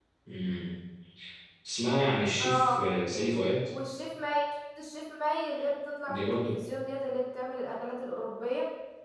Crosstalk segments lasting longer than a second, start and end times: none

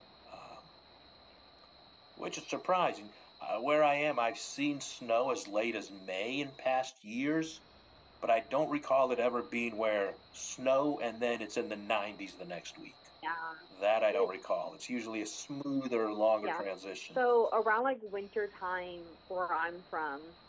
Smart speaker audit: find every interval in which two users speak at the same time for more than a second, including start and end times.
none

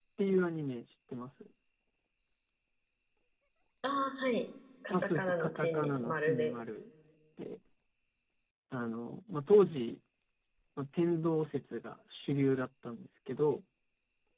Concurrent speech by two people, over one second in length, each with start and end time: 4.9-6.5

